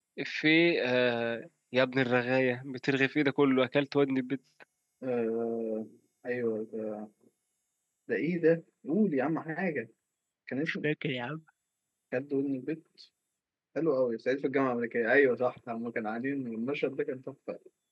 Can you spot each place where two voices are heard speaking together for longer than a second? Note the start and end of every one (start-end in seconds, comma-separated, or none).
none